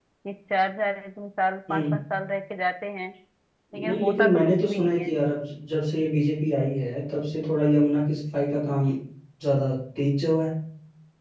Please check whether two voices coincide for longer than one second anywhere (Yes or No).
Yes